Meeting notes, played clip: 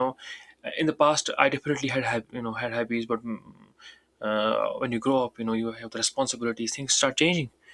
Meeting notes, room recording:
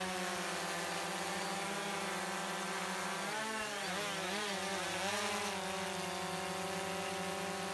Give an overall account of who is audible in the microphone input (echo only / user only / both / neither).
neither